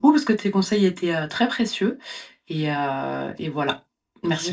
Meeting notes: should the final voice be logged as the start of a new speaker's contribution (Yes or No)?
Yes